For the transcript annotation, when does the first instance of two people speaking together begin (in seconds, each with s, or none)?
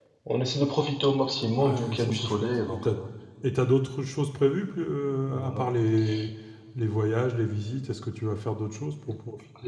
1.6 s